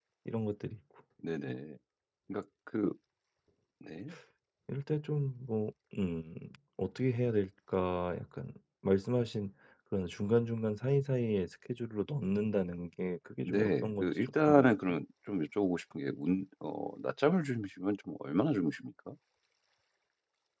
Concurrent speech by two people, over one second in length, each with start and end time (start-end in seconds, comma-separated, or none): 13.4-15.0